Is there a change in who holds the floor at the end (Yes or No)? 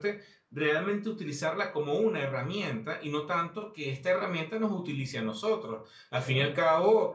No